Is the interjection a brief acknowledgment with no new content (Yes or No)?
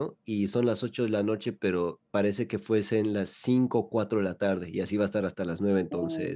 No